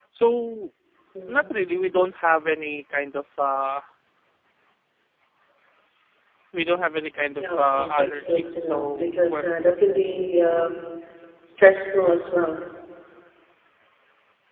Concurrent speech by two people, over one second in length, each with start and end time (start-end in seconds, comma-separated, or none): 7.4-9.5